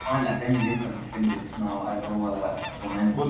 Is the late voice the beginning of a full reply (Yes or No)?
Yes